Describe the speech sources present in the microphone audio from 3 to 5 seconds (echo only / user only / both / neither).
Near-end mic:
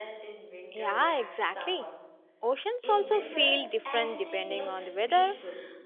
both